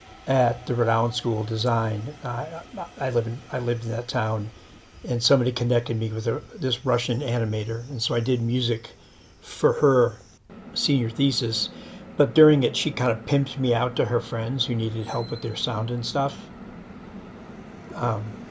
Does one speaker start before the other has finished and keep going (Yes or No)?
No